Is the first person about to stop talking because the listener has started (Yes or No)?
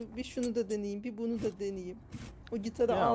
No